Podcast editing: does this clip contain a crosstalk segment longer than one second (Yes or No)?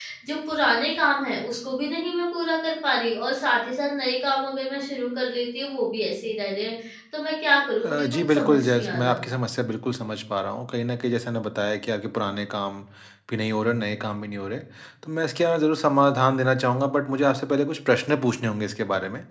Yes